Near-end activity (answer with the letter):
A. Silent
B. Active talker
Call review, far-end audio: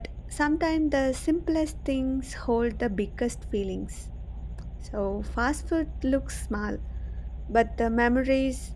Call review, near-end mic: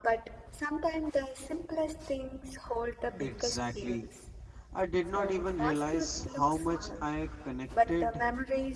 B